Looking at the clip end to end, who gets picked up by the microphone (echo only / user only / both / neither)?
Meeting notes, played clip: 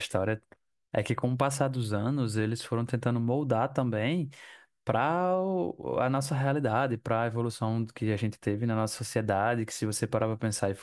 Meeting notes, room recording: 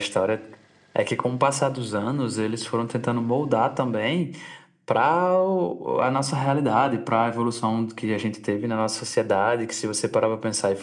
echo only